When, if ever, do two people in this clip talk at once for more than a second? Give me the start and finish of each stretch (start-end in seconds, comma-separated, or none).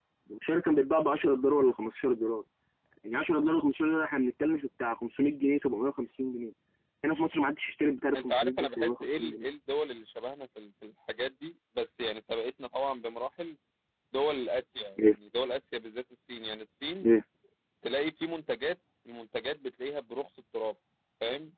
8.2-9.5